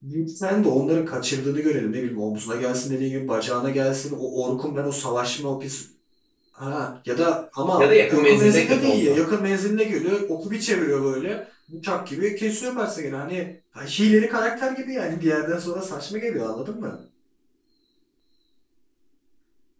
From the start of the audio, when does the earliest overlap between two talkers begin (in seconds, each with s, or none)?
7.8 s